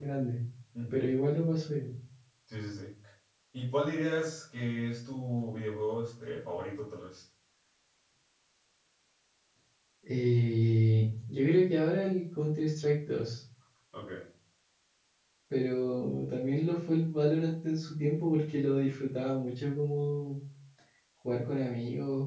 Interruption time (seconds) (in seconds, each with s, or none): none